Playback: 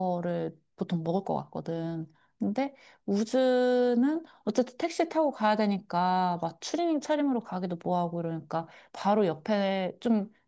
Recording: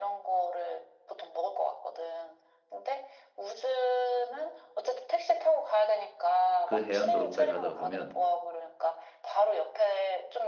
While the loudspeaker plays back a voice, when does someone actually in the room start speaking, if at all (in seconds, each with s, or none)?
6.6 s